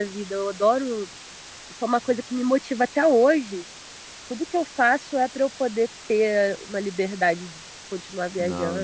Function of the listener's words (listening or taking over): taking over